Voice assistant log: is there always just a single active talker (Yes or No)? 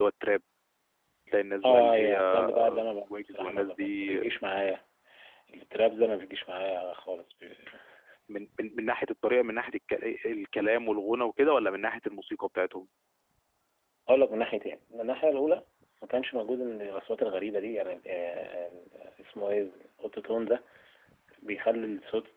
No